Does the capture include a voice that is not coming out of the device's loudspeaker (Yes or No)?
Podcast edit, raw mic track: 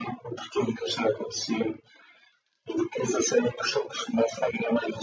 No